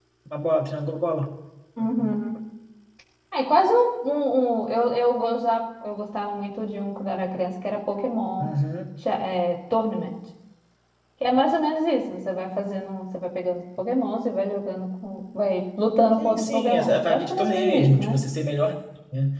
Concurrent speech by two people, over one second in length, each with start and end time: 16.2-18.2

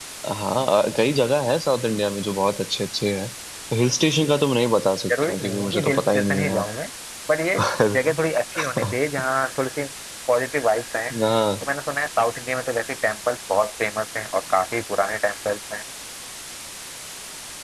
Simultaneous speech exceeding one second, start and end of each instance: 5.2-6.6

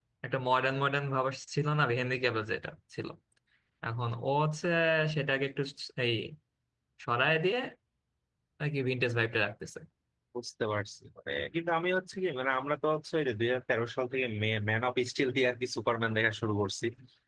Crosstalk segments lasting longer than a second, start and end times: none

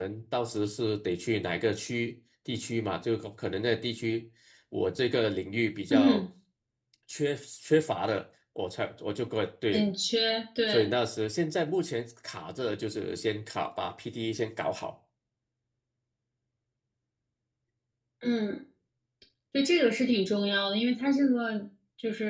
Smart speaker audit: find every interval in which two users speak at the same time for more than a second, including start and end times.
none

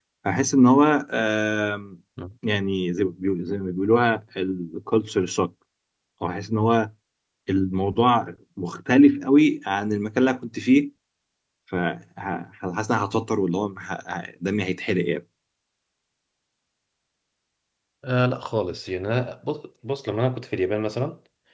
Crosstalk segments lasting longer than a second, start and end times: none

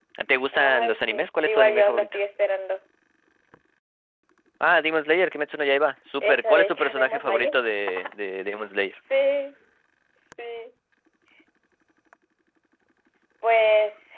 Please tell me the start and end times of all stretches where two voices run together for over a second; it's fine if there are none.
0.5-2.2, 6.2-7.5

